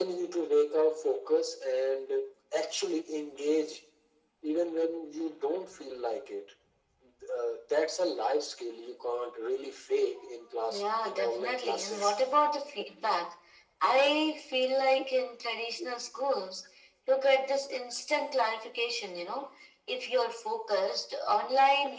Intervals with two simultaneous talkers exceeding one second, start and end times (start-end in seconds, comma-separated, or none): 10.7-12.1